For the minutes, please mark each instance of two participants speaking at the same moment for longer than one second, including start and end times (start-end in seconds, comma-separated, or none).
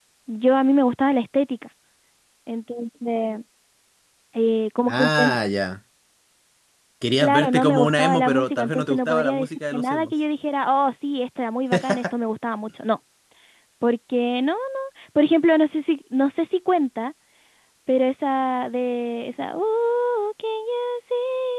7.2-10.1